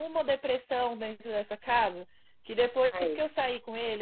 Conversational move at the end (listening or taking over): listening